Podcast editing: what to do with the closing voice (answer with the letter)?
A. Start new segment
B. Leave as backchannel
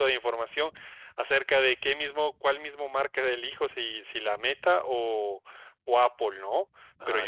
B